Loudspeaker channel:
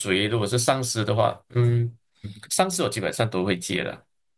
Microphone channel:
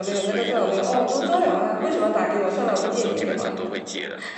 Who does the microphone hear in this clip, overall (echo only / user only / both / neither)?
both